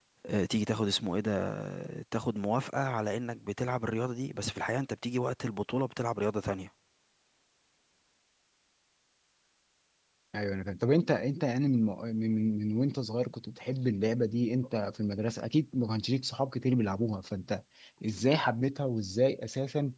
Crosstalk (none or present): none